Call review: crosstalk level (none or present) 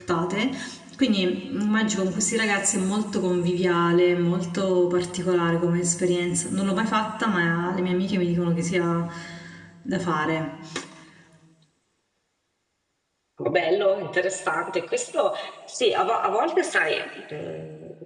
none